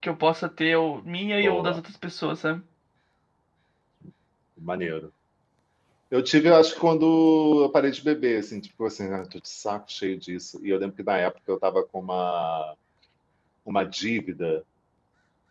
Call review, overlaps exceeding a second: none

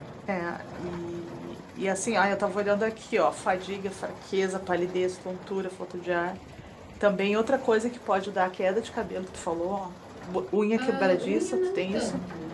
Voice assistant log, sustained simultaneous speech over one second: present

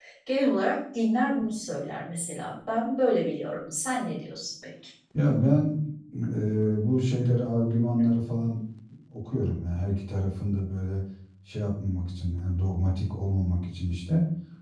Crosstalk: none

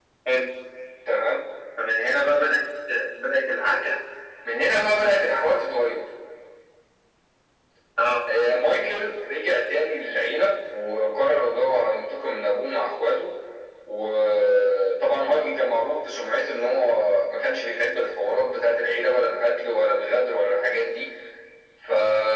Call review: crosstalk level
none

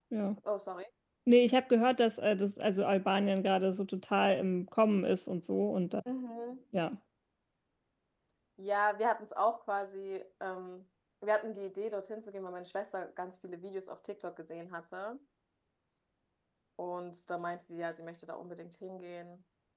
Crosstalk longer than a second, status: none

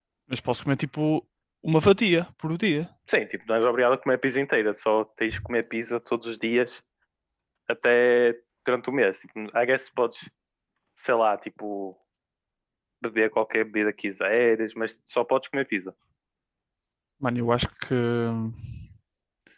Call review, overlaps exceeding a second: none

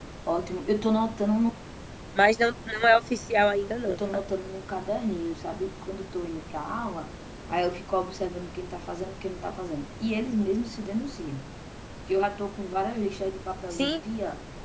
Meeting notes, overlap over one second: none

